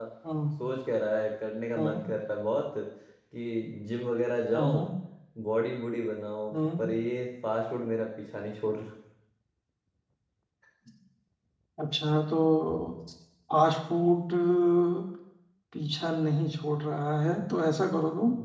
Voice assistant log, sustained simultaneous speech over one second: none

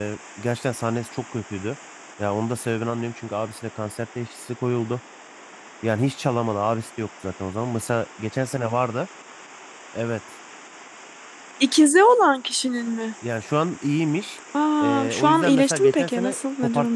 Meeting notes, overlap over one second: present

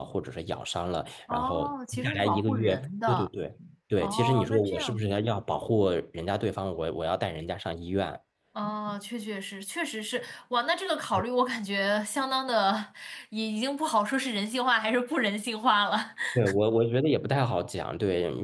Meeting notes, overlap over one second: present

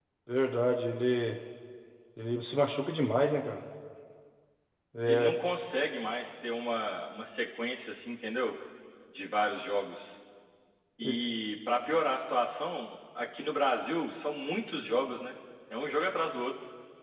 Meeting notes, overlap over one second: none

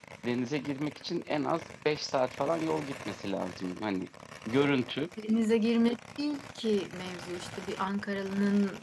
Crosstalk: none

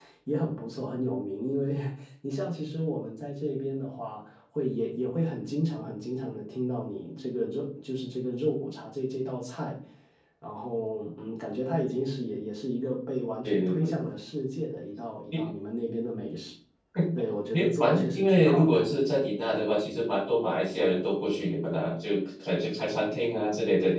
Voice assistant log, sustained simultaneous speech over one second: present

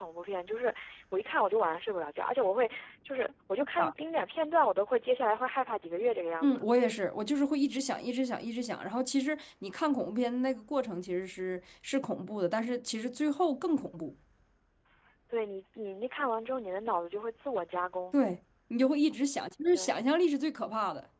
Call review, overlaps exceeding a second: none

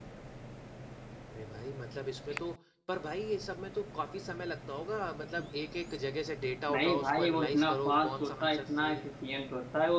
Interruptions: present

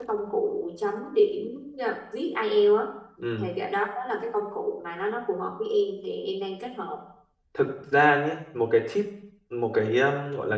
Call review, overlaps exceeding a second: none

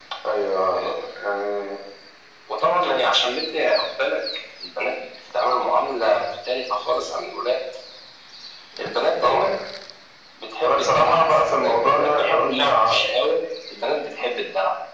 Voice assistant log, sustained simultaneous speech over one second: present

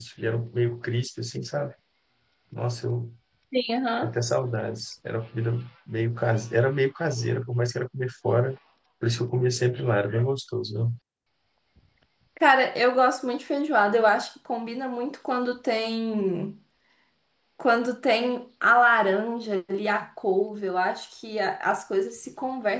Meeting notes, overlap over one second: none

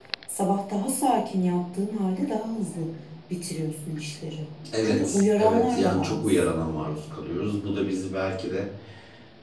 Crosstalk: present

